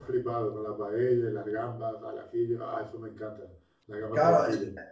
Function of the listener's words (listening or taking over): taking over